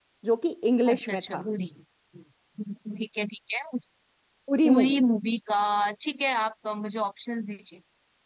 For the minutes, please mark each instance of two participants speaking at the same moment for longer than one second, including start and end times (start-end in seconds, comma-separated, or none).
none